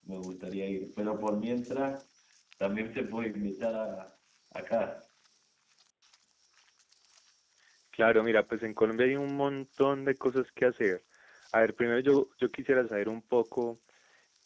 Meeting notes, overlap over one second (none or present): none